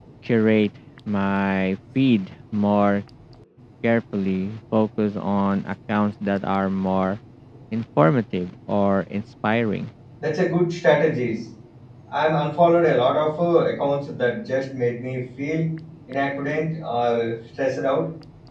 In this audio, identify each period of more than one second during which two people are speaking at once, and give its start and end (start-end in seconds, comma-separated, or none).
none